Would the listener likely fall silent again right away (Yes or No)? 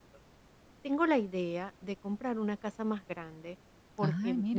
Yes